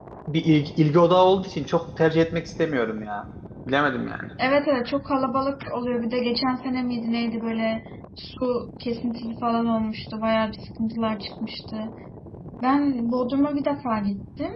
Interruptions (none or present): none